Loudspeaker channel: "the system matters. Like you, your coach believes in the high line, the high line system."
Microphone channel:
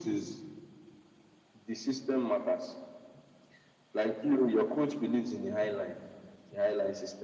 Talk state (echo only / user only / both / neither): echo only